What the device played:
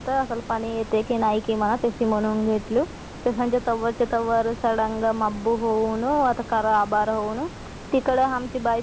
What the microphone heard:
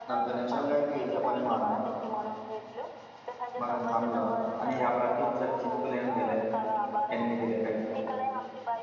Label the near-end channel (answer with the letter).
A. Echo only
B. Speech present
B